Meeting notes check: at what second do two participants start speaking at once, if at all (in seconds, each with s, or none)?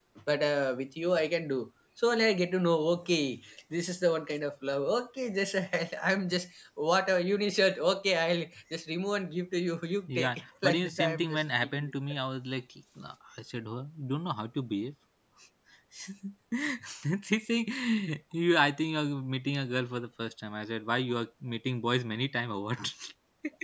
10.1 s